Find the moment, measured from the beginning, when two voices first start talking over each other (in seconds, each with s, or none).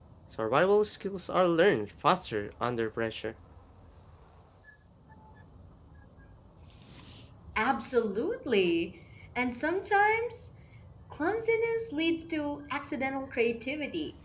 none